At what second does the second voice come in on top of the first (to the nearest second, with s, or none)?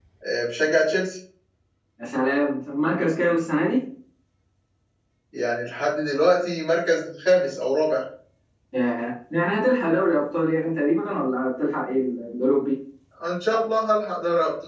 none